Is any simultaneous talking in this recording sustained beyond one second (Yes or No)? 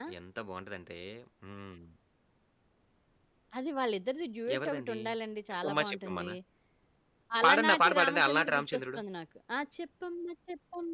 Yes